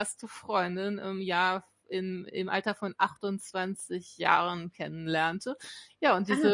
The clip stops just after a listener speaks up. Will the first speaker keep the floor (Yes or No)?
Yes